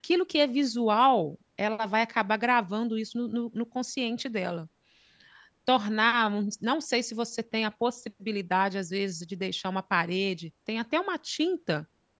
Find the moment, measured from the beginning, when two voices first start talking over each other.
none

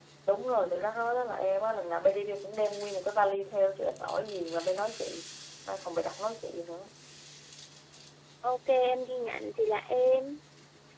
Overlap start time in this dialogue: none

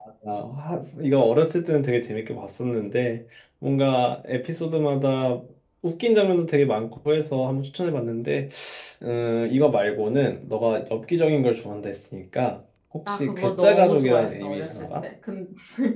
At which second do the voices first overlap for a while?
13.1 s

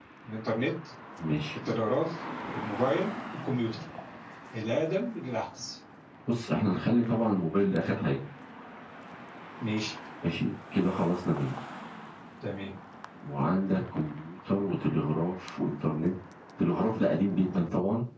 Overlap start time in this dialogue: none

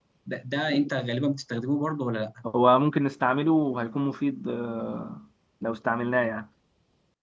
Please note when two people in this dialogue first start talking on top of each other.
none

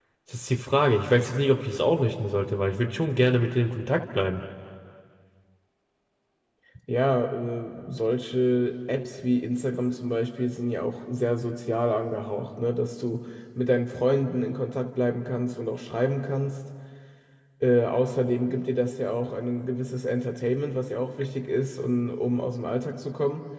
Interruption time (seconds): none

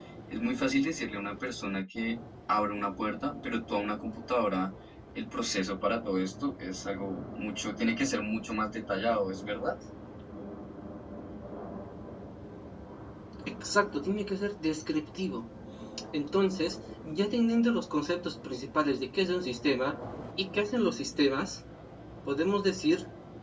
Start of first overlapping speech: none

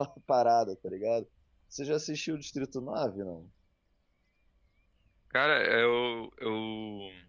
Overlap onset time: none

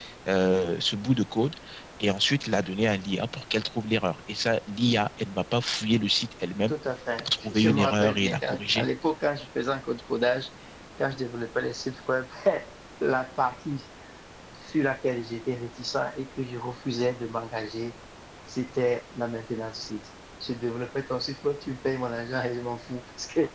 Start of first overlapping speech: 7.2 s

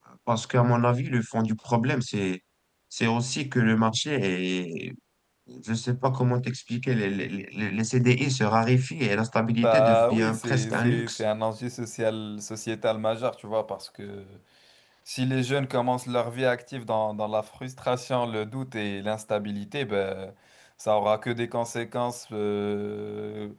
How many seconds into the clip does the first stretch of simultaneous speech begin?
9.5 s

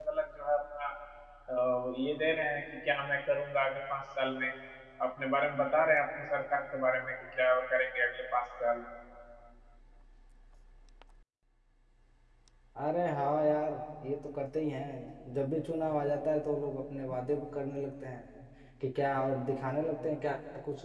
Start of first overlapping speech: none

